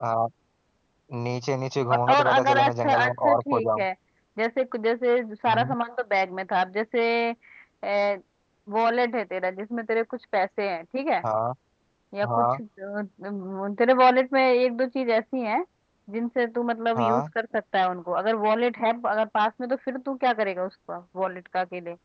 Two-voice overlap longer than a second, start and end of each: 1.9-3.6

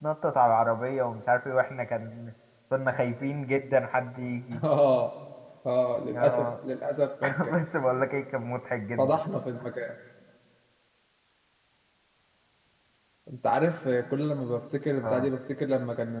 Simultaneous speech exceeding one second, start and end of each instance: none

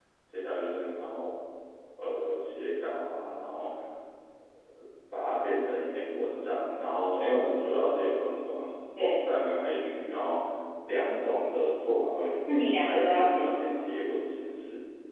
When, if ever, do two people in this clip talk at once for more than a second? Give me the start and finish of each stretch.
12.5-13.9

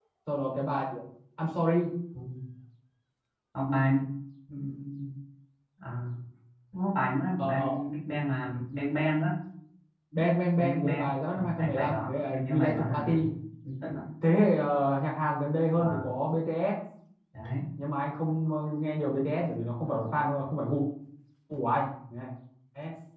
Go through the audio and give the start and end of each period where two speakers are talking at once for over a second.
10.6-13.2

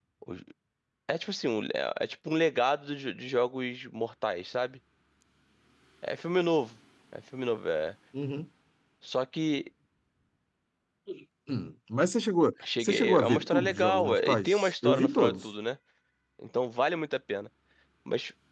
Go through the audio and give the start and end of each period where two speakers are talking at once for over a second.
12.8-15.5

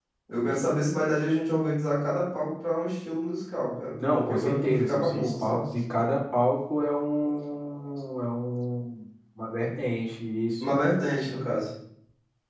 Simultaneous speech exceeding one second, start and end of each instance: 4.1-5.6

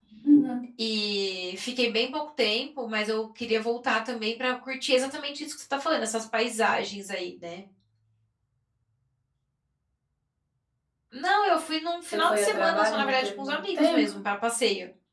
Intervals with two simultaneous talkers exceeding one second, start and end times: 12.1-14.1

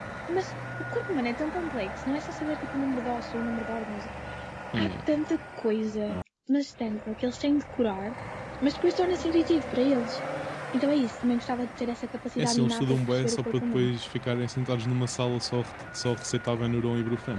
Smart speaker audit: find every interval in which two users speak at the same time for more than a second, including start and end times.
12.4-13.9

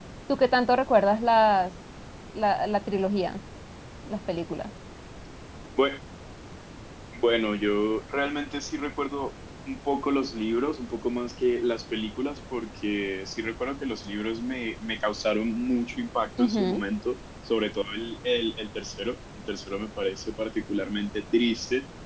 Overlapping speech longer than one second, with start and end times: none

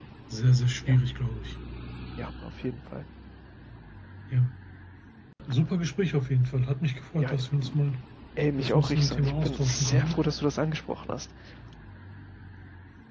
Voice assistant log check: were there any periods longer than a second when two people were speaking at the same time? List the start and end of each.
8.6-10.2

